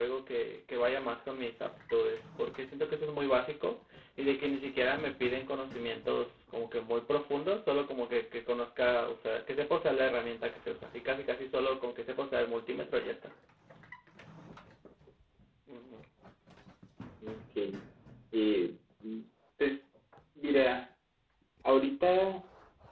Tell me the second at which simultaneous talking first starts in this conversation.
none

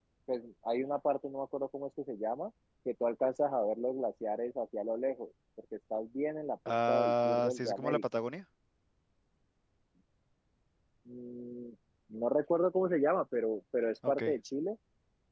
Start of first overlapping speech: 6.7 s

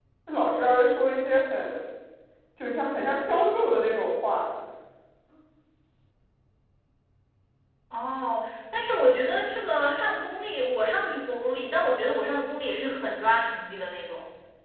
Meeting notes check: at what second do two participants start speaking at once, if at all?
none

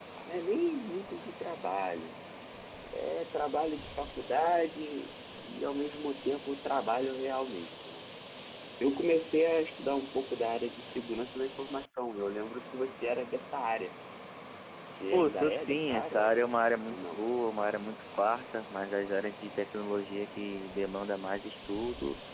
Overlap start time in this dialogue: 15.1 s

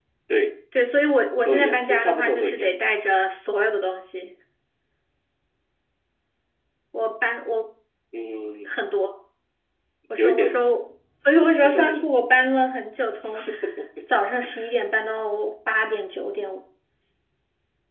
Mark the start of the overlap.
1.4 s

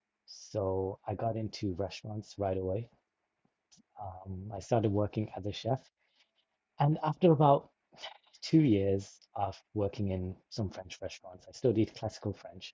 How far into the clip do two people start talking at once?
none

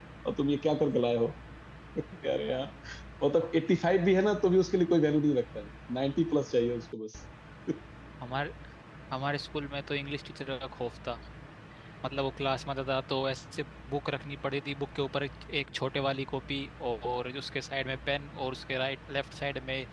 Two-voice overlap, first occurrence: none

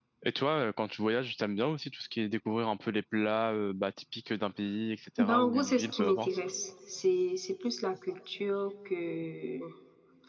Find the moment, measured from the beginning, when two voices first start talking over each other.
5.2 s

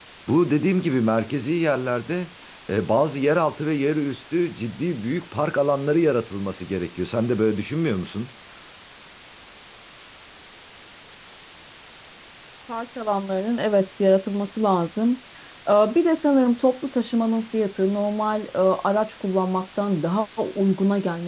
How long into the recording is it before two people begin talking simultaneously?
none

